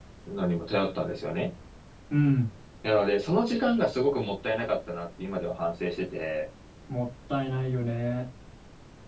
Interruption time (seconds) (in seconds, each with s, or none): none